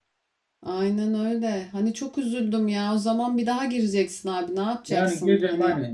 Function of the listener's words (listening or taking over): taking over